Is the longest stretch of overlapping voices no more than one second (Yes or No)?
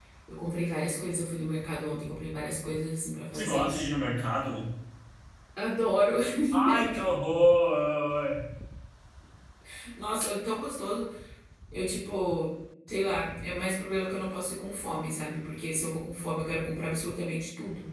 Yes